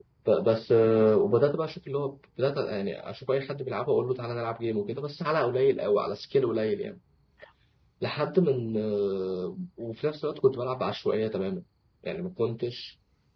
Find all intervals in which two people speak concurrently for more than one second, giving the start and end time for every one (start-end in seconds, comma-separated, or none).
none